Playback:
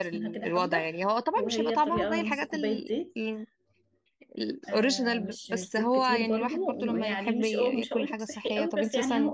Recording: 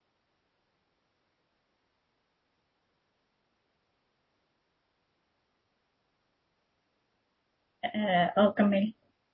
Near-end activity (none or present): present